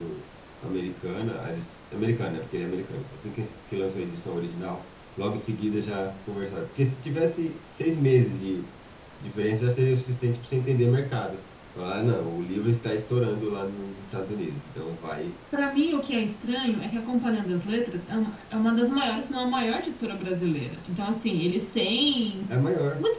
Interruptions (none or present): none